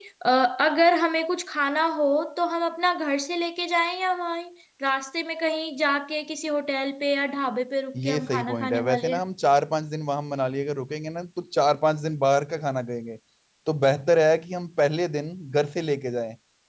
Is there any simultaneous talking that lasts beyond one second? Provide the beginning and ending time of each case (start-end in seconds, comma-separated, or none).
8.0-9.2